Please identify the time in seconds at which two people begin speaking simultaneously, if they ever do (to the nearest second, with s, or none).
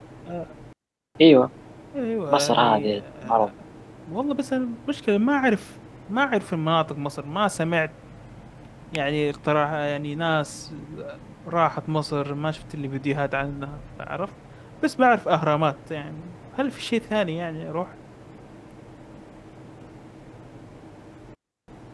2 s